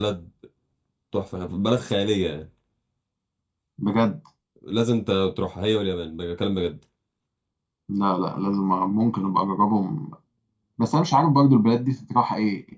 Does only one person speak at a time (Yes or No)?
Yes